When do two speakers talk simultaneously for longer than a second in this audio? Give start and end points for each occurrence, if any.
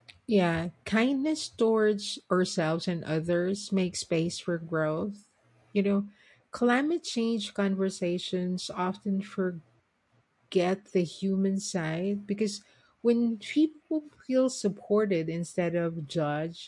none

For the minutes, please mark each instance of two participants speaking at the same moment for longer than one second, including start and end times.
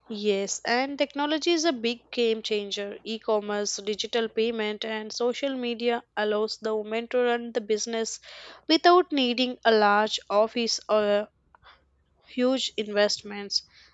none

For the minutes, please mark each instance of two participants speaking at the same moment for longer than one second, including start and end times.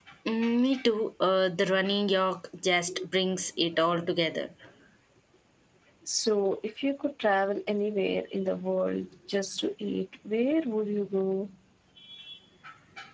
none

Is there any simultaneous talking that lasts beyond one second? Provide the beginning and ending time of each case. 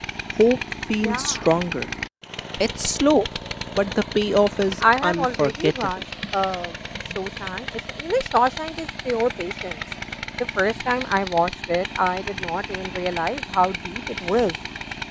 4.8-6.0

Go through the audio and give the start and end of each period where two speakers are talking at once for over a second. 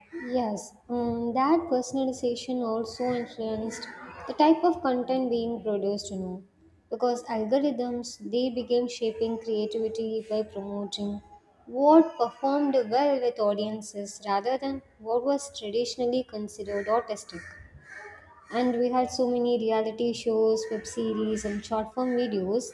none

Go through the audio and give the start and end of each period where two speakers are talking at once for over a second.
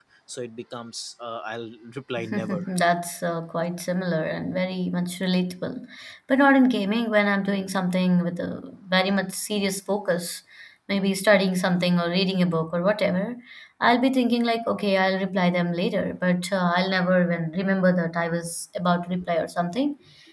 none

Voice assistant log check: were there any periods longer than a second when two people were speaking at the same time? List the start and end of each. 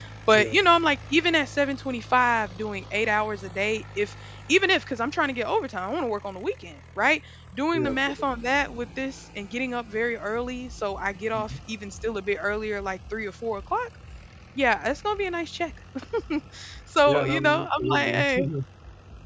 17.1-18.5

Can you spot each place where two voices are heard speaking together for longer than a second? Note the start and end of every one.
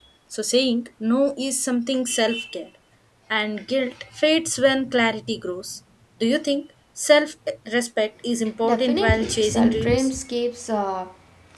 8.7-10.1

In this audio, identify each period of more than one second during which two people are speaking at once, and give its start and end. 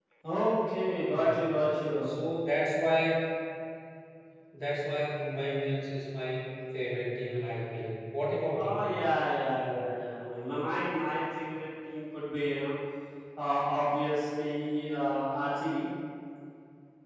none

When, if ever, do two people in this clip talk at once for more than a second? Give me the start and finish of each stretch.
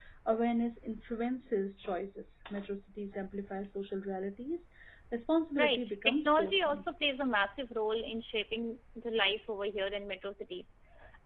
5.6-6.8

